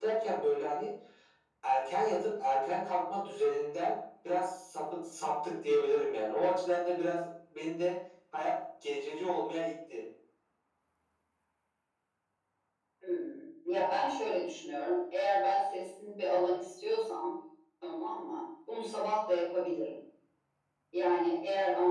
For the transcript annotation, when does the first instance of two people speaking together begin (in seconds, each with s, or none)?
none